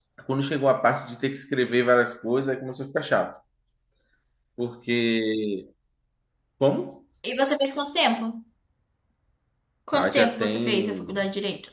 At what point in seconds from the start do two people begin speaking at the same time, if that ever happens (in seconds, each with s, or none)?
9.9 s